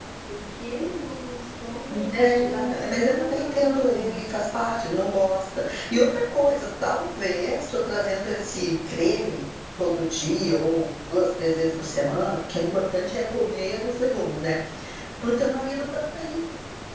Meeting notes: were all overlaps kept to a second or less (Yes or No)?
No